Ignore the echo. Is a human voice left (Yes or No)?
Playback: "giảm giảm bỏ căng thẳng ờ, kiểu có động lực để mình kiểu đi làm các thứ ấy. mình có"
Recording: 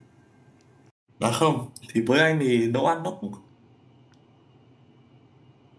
Yes